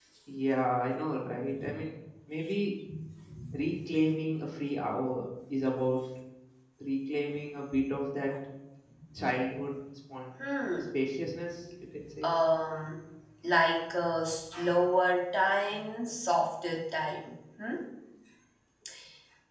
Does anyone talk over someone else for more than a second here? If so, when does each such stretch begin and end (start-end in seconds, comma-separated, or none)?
none